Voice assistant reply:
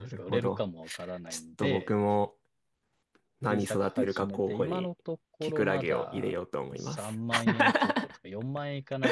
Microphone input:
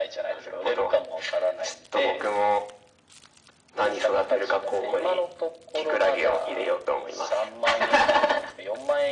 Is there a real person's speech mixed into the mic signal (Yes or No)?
No